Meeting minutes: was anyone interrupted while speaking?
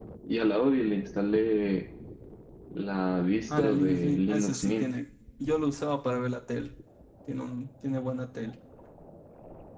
Yes, from 3.5 s

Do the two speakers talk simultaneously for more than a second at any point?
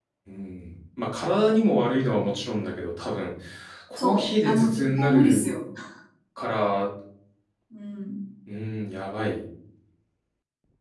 Yes, from 4.0 s

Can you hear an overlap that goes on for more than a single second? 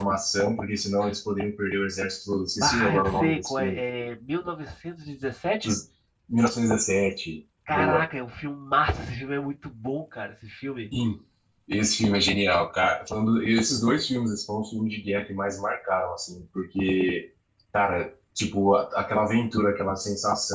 Yes, from 2.6 s

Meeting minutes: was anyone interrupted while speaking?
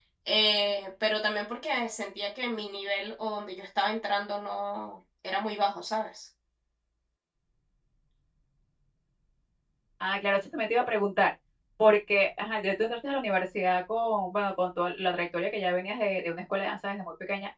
No

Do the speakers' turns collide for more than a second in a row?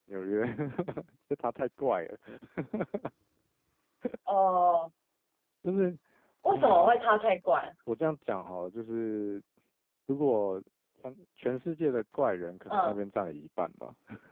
No

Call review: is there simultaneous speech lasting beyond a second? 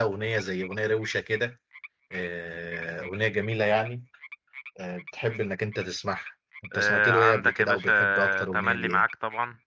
Yes, from 6.7 s

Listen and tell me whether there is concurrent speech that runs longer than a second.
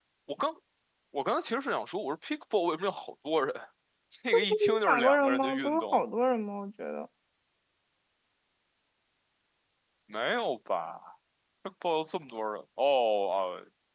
Yes, from 4.5 s

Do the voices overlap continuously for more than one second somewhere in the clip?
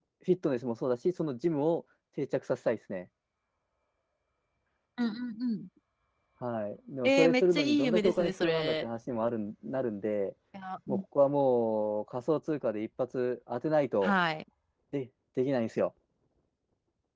Yes, from 7.0 s

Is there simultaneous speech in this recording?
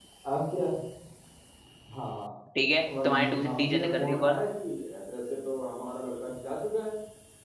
Yes, from 2.8 s

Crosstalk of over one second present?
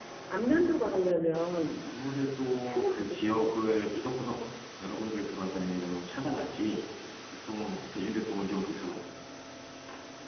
Yes, from 2.6 s

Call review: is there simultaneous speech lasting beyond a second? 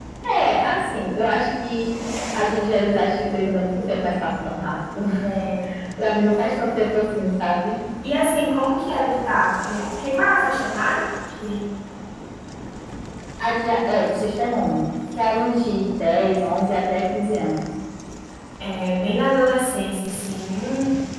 No

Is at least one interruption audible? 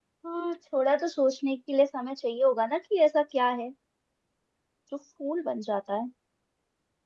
No

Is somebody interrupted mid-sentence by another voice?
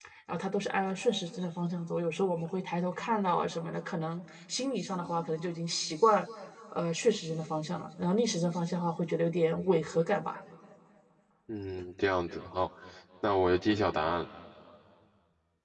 No

